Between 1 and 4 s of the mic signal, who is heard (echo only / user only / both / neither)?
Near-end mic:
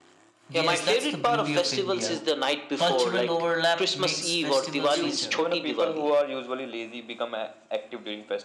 both